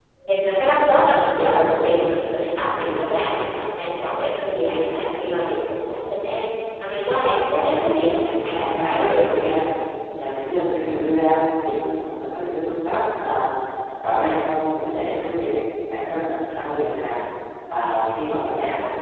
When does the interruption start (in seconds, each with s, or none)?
7.5 s